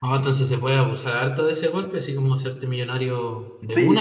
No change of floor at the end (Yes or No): No